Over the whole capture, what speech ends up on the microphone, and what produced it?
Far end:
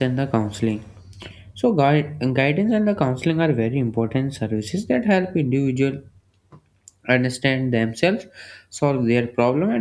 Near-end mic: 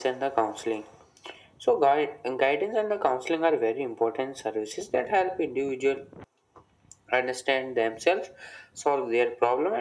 echo only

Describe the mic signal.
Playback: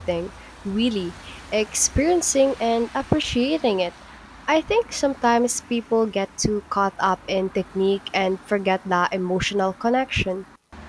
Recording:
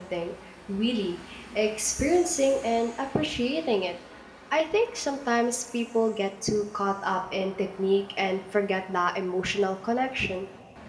echo only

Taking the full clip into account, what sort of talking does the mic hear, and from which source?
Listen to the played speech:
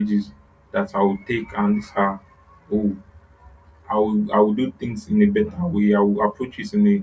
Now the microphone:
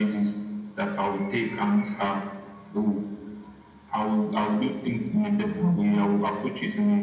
echo only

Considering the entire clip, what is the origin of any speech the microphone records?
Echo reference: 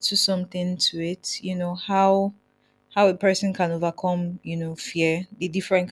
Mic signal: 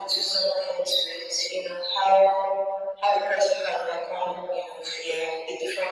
echo only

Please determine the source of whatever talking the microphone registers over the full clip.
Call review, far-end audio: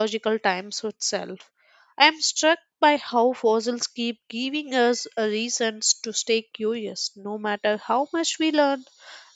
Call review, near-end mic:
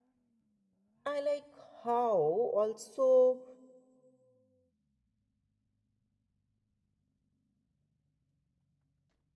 user only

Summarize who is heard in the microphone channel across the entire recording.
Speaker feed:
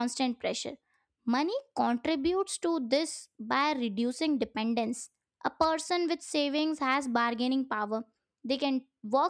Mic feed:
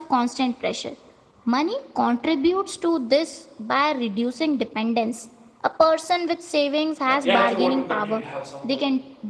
both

